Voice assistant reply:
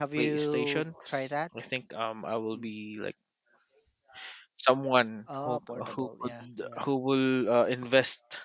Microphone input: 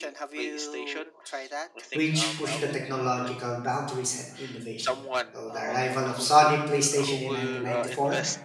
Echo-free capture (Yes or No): No